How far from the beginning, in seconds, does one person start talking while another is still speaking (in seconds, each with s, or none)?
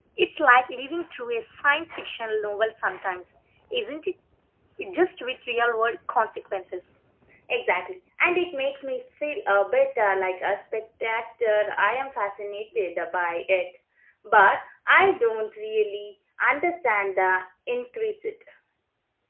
none